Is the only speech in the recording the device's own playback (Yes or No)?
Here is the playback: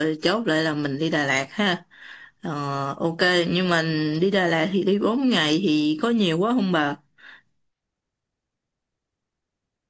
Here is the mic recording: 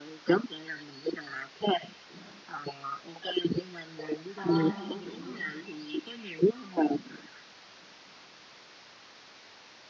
No